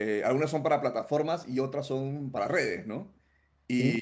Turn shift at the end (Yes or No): No